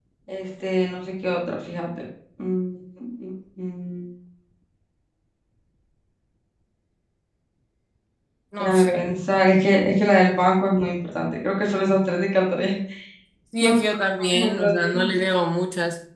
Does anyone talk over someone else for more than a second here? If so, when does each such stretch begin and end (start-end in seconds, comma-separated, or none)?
13.6-15.2